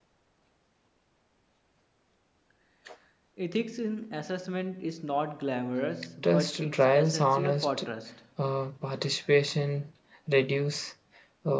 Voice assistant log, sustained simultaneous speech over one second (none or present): present